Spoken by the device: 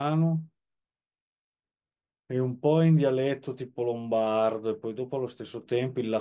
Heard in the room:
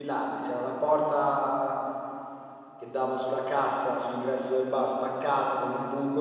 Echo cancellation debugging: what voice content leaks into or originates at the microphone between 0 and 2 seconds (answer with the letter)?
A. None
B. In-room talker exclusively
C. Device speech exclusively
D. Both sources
B